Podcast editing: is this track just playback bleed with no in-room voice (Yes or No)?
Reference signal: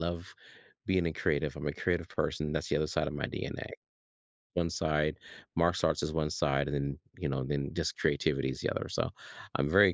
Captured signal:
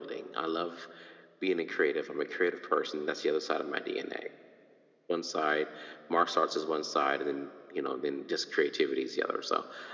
Yes